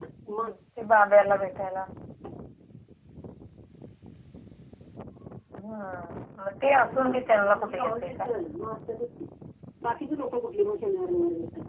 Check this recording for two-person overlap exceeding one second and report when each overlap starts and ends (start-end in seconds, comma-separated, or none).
7.0-8.3